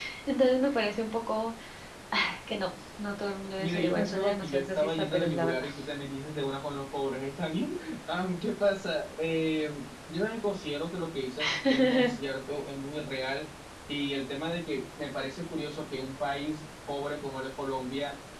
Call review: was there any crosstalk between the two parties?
Yes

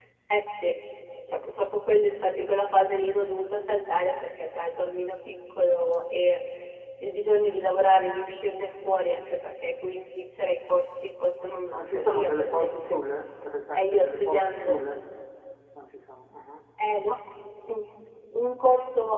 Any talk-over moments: Yes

